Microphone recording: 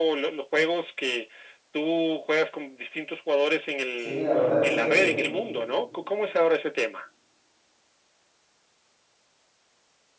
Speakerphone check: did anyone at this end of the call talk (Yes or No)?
Yes